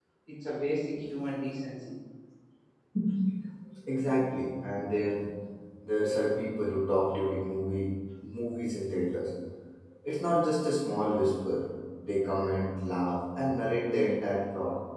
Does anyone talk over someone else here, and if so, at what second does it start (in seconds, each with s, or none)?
none